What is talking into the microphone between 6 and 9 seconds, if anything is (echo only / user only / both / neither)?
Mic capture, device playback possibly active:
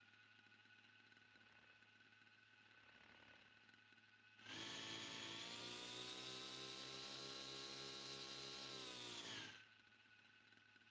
neither